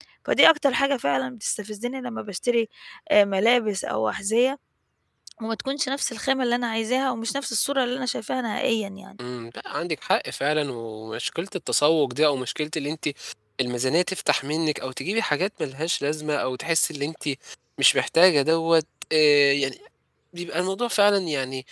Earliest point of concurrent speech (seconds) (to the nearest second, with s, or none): none